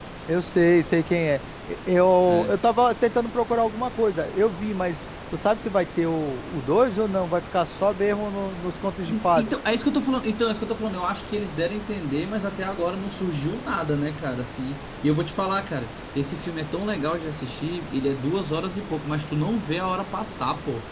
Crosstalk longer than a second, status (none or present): none